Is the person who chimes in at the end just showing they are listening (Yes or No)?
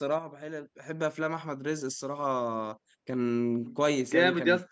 No